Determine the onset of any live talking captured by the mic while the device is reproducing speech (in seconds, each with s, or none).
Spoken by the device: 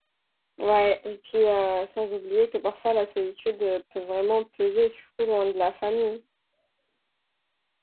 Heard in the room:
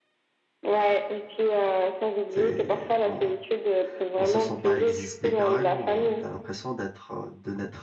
2.3 s